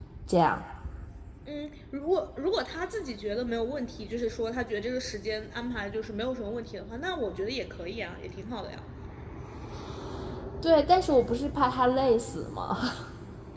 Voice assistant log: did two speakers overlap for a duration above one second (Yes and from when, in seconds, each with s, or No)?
No